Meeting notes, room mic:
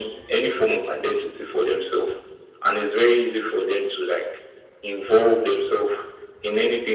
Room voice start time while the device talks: none

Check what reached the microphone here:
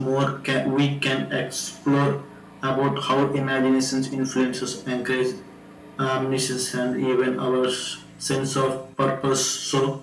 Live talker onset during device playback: none

